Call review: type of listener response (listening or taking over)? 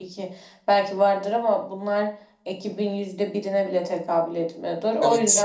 listening